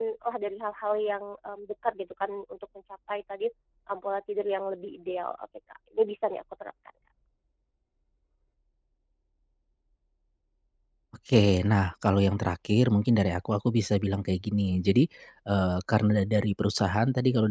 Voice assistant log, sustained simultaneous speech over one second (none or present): none